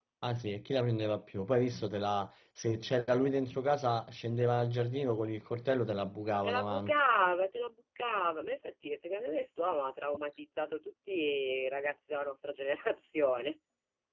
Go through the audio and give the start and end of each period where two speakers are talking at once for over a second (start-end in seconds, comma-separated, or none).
none